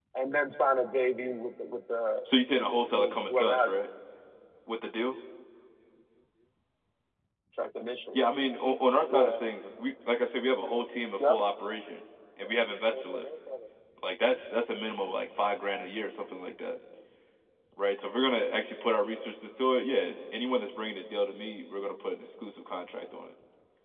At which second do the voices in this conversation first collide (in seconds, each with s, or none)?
2.2 s